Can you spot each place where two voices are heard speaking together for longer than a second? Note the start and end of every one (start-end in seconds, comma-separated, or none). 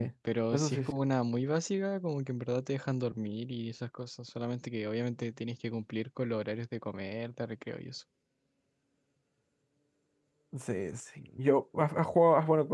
none